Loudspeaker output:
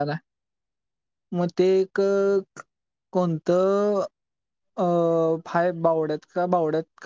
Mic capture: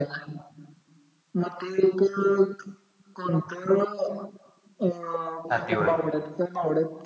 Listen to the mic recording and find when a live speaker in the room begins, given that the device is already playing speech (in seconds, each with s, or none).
5.5 s